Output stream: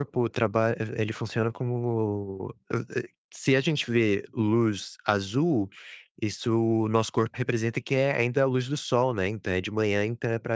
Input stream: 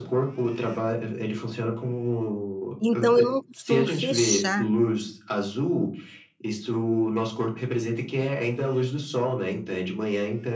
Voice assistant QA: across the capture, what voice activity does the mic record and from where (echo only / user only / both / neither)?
both